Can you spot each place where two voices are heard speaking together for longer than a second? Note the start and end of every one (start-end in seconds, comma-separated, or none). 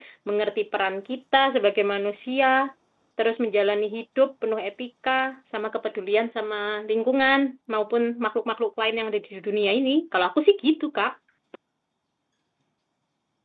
none